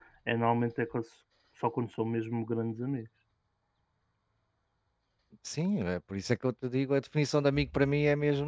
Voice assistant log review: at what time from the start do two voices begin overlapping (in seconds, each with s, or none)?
none